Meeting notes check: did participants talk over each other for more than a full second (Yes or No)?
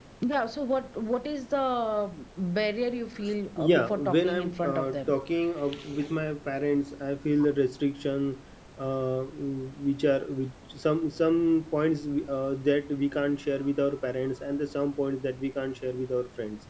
Yes